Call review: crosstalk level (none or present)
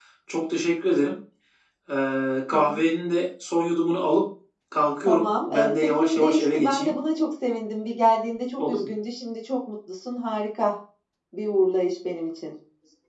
present